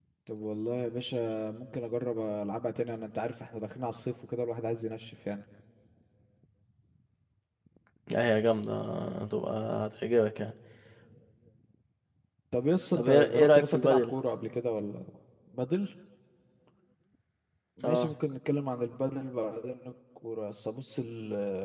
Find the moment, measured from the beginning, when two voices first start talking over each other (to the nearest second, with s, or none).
13 s